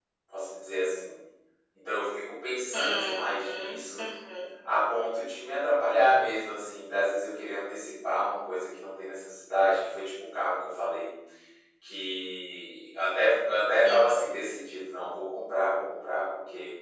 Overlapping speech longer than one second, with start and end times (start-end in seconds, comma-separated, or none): 2.7-4.0